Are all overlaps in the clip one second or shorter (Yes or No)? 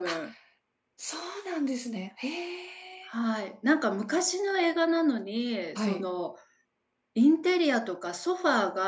Yes